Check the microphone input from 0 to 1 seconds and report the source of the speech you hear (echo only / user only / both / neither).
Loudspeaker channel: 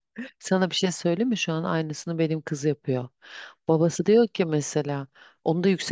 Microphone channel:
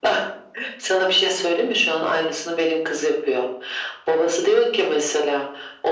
echo only